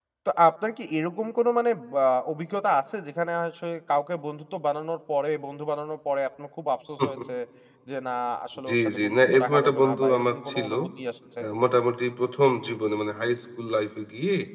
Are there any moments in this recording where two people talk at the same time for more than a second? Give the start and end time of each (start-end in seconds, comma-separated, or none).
8.7-10.7